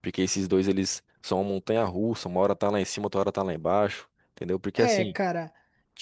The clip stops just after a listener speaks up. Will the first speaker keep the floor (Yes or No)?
No